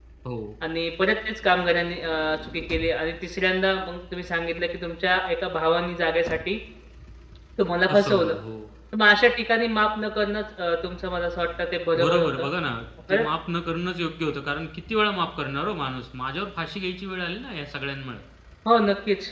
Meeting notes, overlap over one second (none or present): none